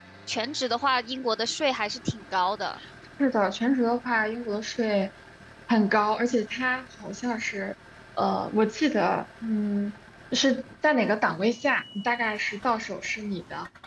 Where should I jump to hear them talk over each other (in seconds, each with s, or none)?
none